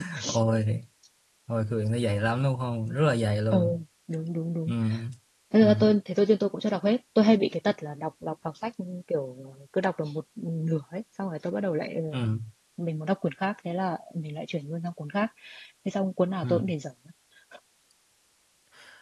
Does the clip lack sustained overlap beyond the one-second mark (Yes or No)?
Yes